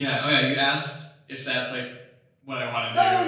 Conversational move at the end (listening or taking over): taking over